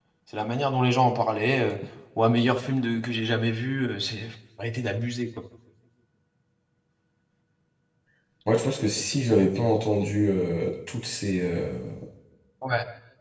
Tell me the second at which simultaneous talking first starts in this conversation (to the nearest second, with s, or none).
none